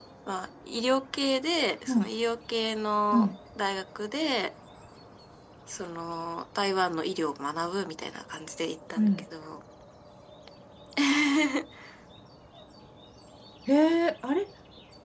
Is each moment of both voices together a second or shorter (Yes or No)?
Yes